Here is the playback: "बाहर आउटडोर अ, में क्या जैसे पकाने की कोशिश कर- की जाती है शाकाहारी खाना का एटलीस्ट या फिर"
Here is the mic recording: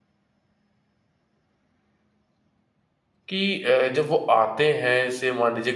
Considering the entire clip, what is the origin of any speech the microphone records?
user only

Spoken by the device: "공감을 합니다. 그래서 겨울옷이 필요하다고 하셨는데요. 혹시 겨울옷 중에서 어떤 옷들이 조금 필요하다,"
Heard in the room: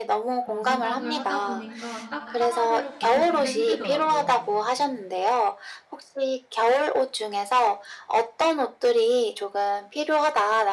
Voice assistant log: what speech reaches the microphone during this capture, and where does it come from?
both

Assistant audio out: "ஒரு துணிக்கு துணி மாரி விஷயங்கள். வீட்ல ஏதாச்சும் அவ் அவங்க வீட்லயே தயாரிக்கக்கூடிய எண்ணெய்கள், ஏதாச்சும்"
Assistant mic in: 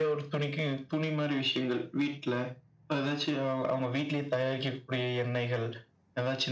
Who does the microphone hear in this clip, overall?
echo only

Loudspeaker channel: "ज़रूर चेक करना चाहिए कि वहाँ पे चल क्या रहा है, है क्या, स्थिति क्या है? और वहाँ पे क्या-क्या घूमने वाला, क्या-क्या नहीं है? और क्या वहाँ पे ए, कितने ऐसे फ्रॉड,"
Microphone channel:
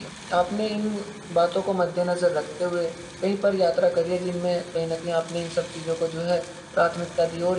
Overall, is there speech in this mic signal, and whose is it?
user only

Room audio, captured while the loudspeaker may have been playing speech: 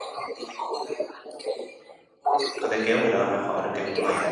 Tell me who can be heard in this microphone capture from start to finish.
both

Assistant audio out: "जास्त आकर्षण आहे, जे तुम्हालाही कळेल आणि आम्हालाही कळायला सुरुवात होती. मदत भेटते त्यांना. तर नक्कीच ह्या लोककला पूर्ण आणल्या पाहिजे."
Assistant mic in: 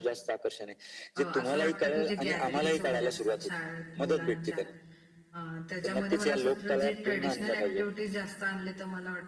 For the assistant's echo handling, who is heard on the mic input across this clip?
both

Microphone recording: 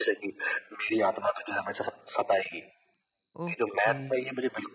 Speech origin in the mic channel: both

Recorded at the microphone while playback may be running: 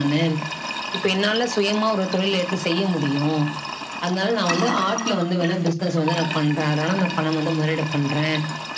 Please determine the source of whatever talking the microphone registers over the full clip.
echo only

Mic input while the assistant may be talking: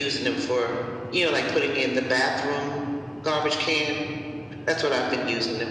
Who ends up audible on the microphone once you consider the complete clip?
echo only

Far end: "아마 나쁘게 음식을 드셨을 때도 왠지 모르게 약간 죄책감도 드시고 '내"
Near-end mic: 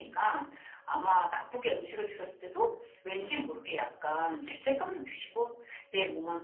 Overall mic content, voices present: echo only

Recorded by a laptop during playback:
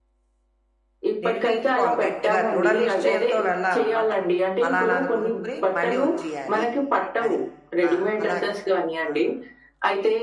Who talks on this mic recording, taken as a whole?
both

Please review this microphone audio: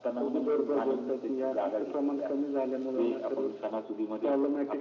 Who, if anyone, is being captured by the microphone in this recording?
echo only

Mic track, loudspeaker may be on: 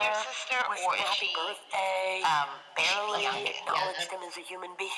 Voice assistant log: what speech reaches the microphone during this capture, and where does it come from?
both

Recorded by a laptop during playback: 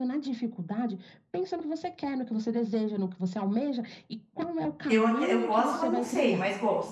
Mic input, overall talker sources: both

